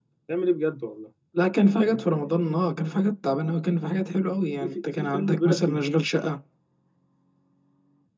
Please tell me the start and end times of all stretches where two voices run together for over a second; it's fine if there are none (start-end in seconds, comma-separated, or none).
4.6-5.8